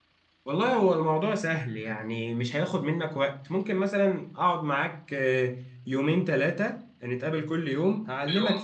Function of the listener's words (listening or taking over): listening